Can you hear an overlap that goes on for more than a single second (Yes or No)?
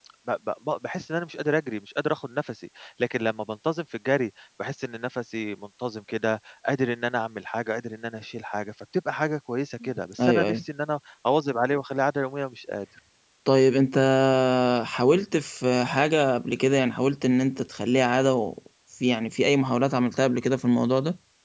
No